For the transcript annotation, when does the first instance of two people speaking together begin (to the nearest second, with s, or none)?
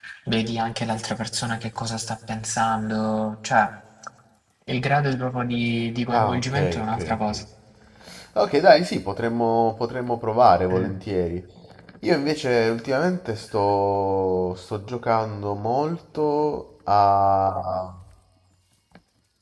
6 s